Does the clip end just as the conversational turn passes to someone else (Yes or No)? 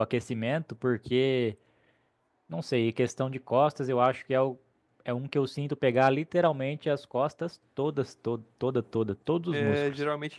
Yes